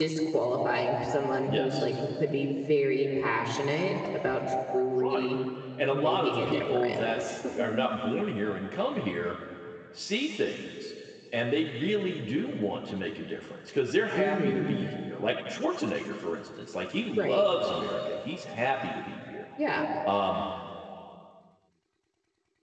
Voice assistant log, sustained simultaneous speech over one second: present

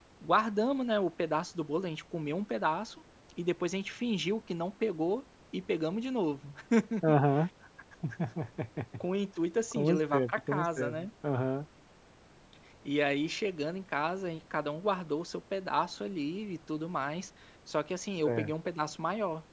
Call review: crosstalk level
present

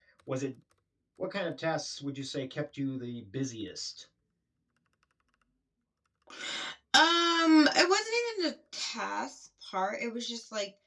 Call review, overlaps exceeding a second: none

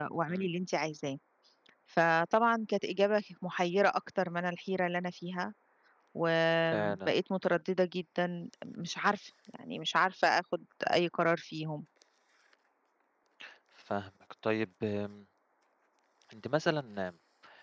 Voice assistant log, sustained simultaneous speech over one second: none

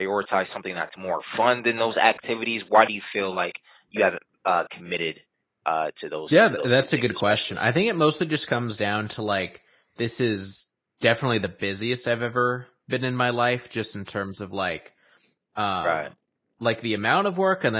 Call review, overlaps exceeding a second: present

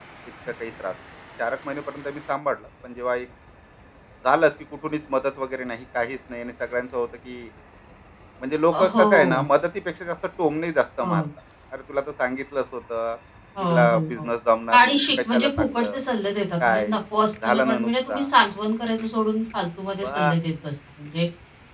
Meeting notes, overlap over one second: present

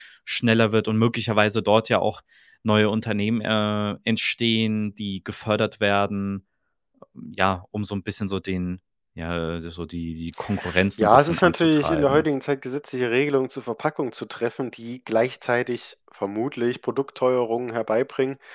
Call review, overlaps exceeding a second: present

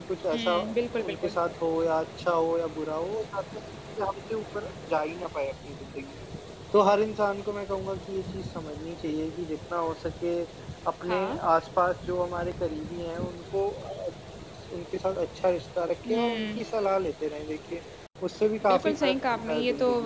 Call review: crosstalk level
present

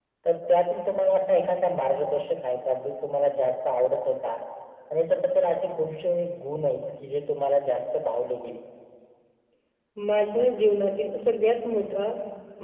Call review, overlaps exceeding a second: none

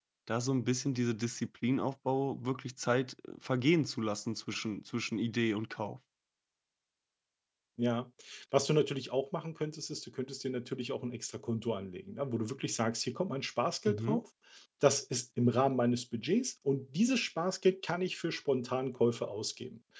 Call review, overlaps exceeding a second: none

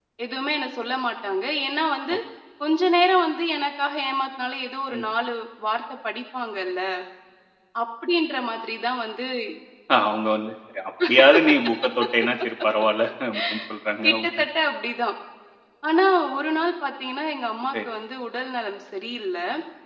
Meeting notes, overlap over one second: none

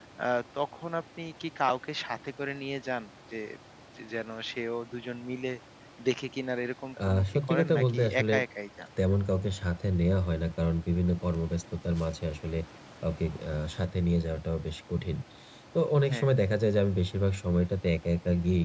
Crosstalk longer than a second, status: present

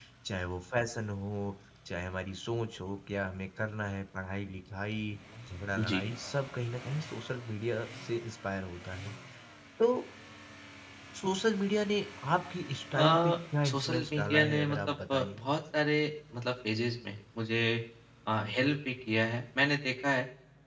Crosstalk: present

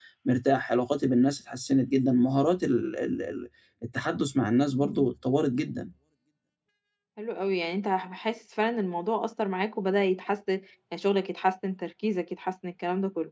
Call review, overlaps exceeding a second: none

